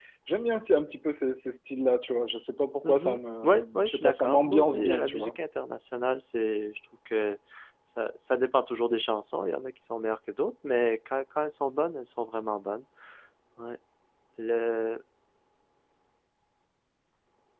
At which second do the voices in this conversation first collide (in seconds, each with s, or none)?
2.8 s